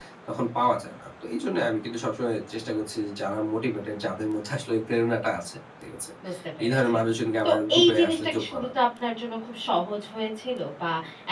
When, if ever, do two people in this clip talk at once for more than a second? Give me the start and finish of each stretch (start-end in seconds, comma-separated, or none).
7.4-8.7